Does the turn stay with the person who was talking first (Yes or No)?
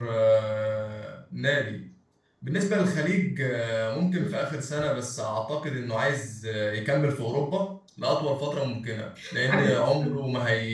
Yes